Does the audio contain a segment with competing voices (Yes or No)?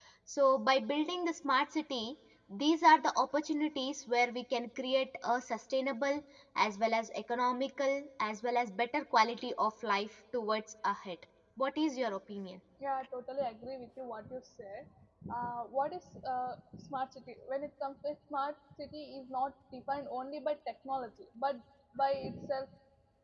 No